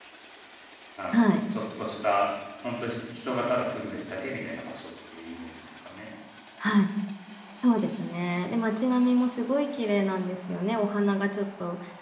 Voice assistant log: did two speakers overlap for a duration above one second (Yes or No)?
No